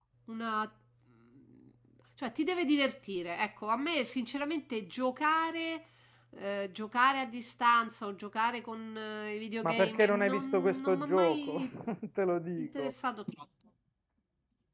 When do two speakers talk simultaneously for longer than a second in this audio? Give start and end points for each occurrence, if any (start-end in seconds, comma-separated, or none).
9.6-11.6